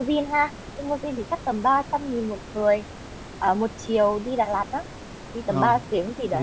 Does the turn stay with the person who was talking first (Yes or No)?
No